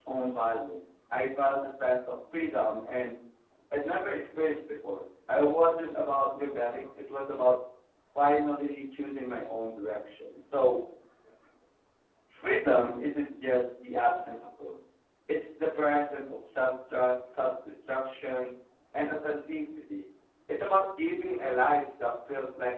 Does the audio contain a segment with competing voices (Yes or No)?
No